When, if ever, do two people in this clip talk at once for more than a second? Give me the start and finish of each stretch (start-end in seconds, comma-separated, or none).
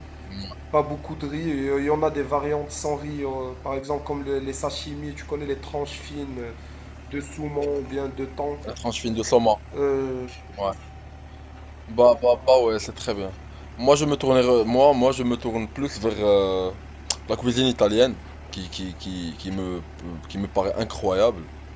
none